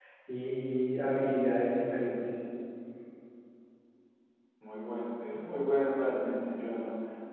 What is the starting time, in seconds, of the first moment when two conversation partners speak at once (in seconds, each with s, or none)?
none